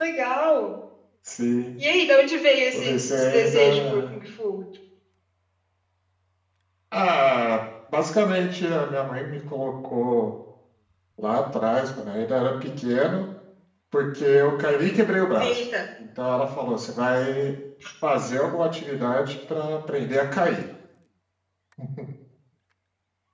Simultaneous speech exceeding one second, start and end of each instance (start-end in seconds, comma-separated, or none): 2.7-4.2